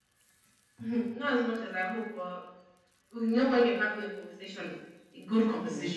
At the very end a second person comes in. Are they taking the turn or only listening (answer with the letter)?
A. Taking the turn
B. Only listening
B